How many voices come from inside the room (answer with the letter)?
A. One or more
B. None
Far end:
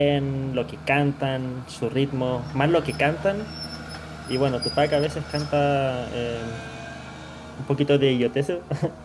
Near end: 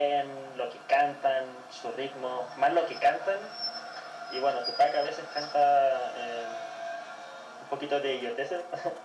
B